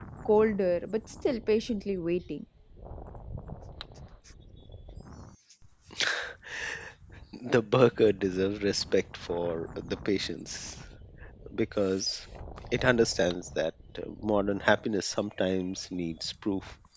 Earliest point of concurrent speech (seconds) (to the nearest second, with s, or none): none